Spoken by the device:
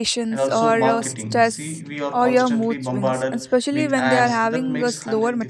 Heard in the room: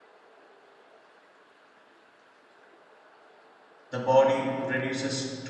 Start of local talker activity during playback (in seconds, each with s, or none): 3.9 s